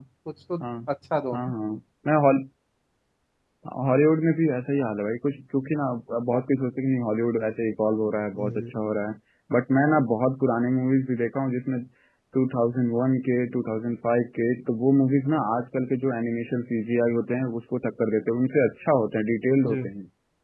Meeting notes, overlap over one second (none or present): none